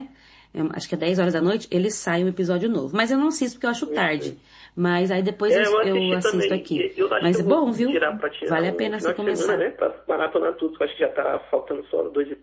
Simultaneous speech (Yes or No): Yes